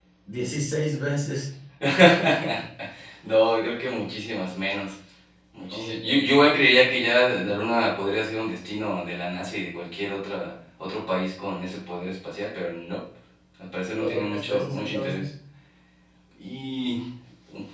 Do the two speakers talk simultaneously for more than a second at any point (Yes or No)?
Yes